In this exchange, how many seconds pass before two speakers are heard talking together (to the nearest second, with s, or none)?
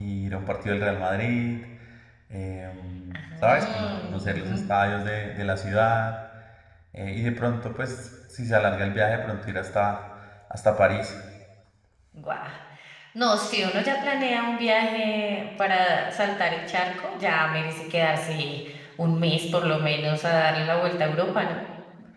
3 s